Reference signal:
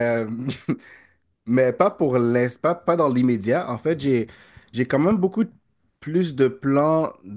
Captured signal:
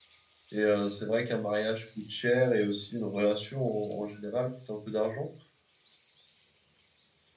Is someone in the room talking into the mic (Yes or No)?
Yes